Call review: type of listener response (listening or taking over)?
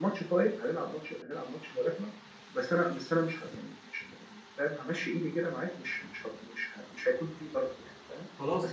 listening